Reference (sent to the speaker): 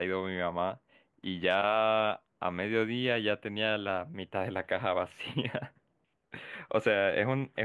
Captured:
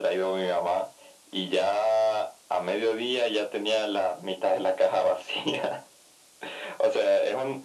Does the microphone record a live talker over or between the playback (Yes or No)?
No